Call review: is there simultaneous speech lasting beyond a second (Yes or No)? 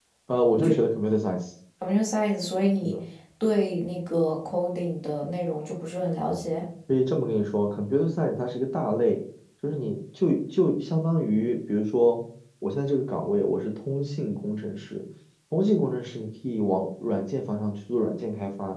No